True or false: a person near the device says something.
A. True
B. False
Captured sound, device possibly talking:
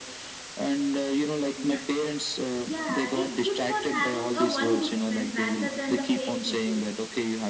A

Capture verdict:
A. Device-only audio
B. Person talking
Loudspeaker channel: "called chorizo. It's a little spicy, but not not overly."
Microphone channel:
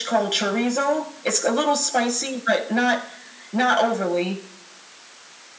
A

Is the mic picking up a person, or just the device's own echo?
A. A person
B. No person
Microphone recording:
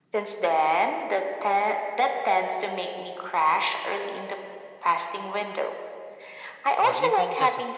A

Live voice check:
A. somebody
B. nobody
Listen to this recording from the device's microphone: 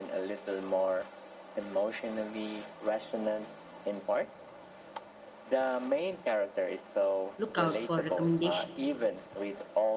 A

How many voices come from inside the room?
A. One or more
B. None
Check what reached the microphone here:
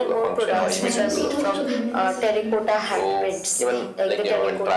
A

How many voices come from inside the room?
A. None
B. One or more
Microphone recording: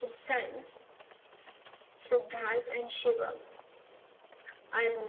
A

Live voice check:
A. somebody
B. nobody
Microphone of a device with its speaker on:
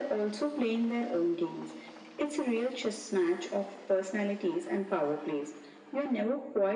B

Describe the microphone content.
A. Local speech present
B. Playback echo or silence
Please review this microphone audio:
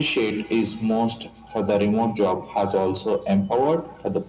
B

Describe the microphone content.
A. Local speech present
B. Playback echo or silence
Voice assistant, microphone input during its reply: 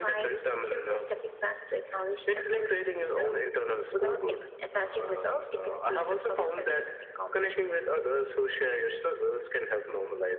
B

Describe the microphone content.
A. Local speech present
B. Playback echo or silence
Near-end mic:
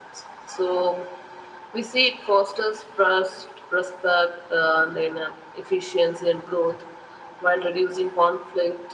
B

